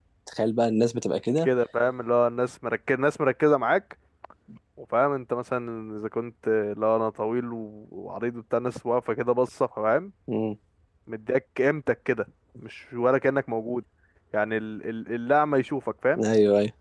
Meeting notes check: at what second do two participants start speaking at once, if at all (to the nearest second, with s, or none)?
none